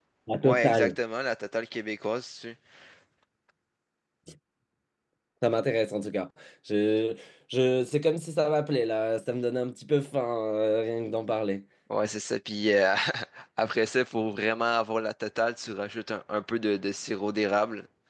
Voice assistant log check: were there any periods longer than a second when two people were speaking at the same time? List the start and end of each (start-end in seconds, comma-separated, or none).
none